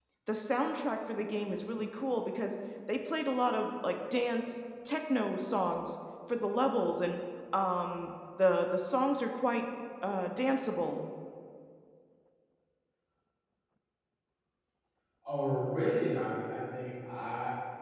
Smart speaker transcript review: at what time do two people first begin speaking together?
none

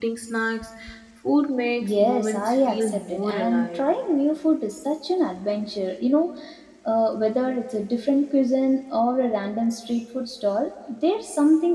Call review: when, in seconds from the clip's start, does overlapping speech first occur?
2 s

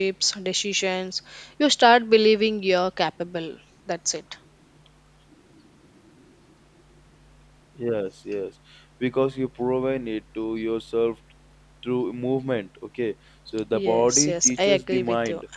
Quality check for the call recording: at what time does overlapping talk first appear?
14 s

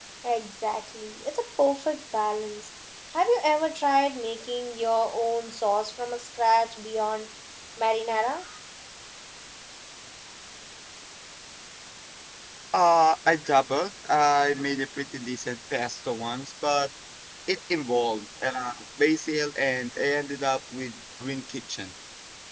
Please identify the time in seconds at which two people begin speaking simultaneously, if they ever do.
none

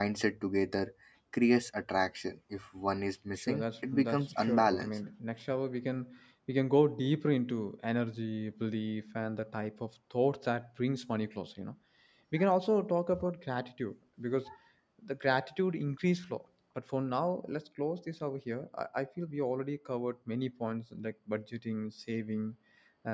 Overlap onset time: 3 s

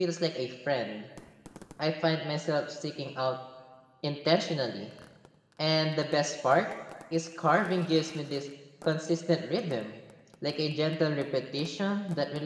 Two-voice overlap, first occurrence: none

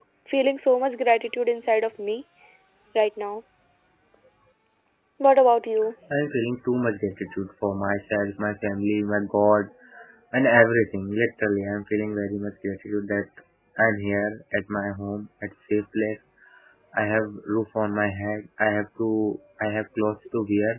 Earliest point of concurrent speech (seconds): none

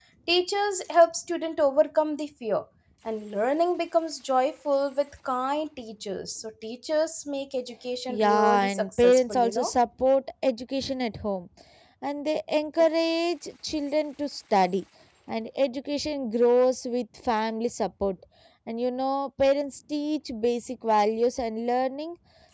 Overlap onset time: 8 s

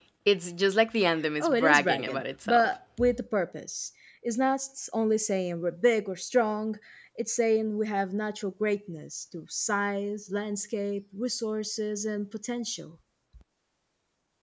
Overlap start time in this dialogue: 1 s

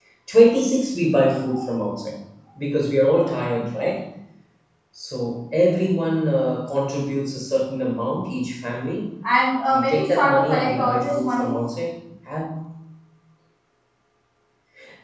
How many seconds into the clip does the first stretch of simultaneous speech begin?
10 s

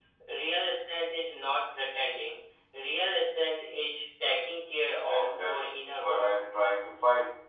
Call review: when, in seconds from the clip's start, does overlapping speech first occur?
5 s

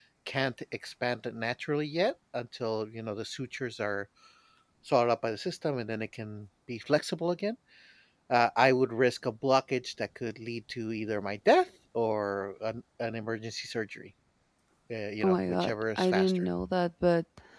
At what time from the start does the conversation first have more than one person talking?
15 s

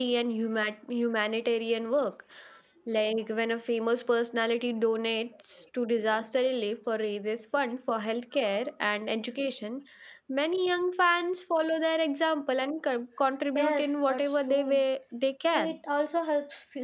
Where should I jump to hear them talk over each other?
14 s

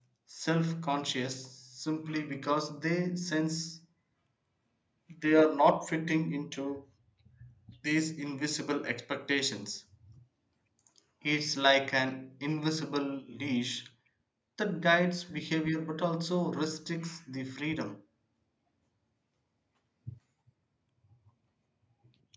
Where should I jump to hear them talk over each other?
none

